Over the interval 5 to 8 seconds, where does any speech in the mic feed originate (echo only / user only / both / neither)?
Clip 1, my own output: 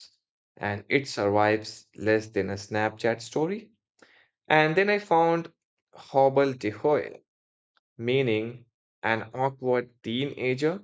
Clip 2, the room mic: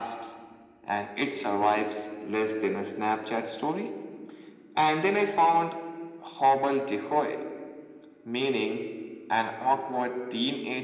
echo only